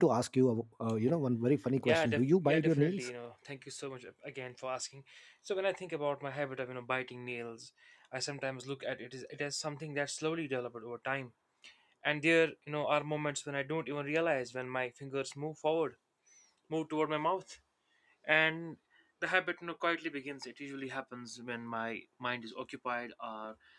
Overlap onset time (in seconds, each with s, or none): 1.9 s